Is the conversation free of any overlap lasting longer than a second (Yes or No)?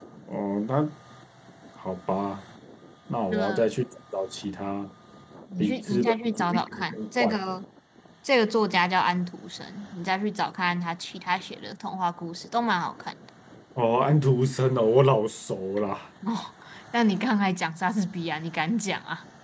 No